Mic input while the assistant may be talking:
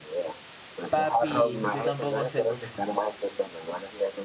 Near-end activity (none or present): present